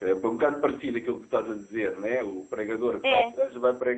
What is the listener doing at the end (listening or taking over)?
listening